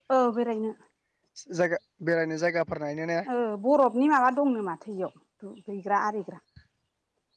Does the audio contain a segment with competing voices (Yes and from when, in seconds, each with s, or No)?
No